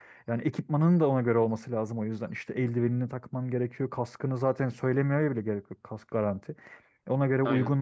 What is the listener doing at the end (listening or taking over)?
listening